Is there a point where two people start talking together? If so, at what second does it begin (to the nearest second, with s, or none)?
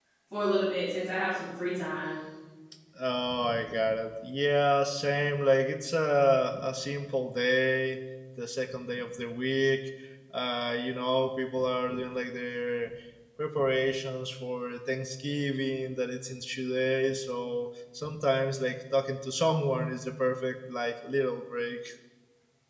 none